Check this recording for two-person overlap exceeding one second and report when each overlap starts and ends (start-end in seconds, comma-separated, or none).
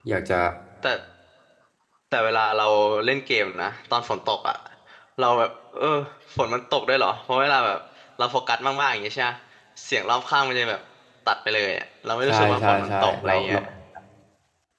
12.3-13.6